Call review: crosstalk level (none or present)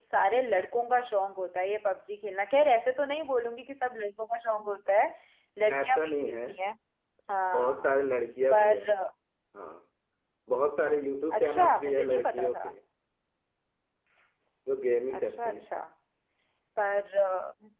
present